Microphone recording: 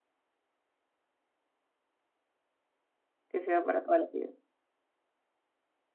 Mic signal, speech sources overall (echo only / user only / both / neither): user only